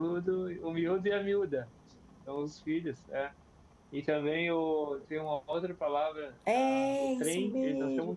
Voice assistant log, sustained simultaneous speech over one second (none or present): present